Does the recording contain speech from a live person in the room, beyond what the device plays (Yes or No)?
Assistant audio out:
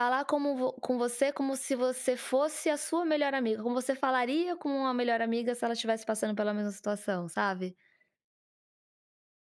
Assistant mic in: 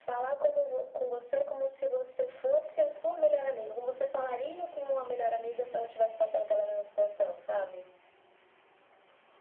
No